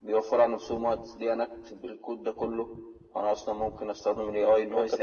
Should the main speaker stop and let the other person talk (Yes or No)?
Yes